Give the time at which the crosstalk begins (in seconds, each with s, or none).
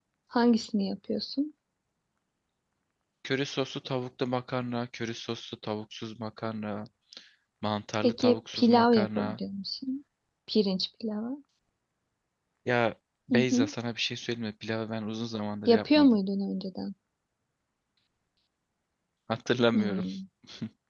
8.0 s